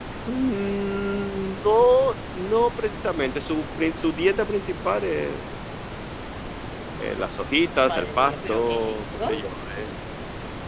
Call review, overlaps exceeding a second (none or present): present